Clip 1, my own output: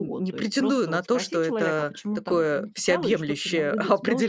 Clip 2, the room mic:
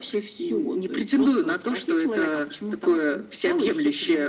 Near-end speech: none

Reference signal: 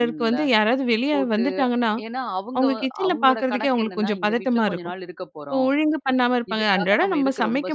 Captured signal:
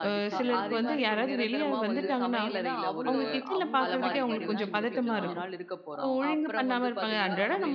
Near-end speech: present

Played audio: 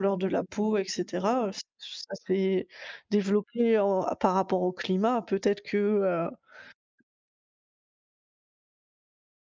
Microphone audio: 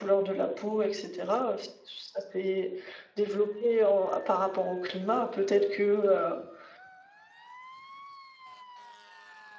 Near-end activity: none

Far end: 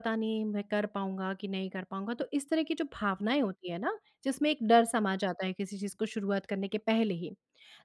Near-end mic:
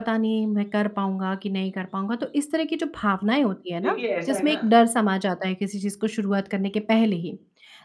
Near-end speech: present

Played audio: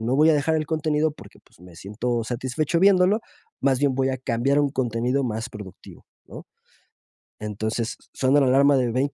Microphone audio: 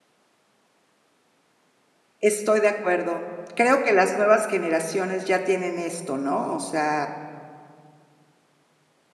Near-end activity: present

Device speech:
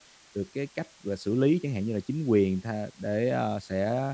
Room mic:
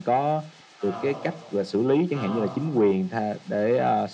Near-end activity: present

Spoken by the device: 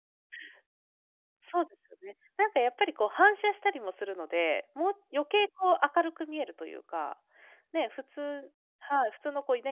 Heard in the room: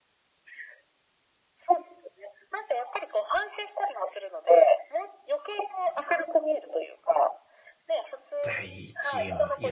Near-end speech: present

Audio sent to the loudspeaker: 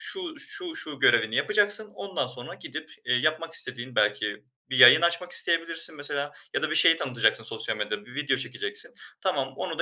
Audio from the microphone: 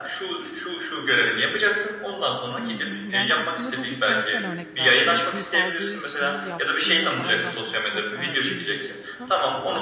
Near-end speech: present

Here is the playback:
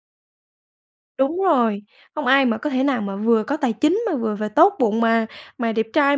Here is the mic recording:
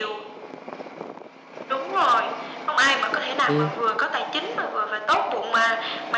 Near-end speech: present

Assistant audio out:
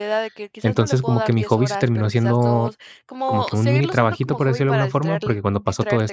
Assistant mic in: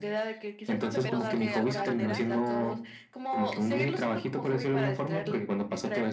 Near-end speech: present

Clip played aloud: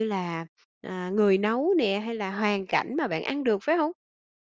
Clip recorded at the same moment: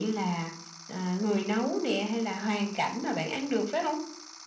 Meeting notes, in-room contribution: none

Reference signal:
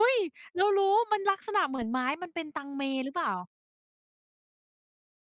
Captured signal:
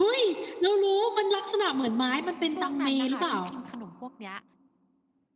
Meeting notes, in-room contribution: present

